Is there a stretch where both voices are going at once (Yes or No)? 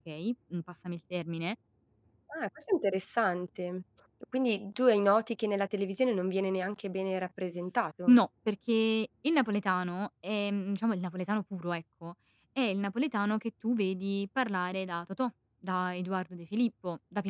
No